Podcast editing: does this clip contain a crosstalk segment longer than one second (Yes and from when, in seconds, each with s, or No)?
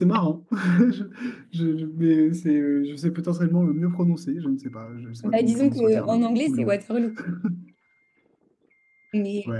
Yes, from 5.2 s